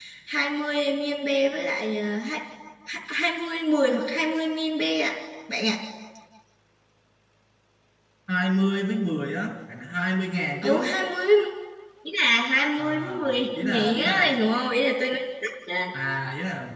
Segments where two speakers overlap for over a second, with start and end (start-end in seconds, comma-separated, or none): 12.8-14.4